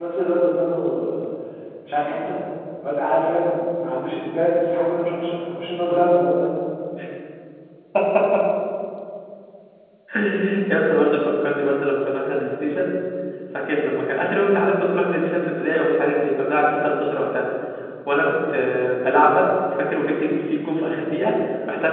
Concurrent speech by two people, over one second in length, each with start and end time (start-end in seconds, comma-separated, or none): none